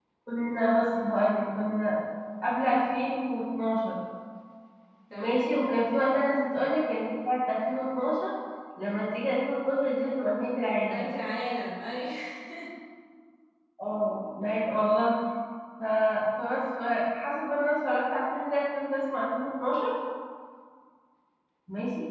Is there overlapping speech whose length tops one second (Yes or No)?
No